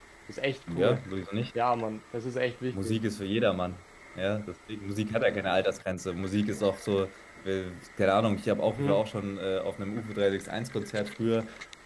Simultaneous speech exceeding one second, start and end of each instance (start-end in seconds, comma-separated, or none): none